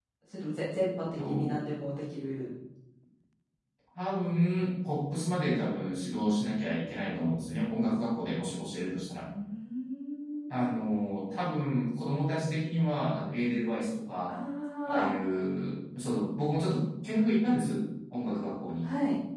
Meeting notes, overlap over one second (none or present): none